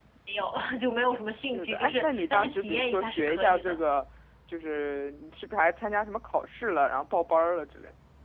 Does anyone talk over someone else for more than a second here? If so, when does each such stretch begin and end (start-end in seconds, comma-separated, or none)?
1.3-3.8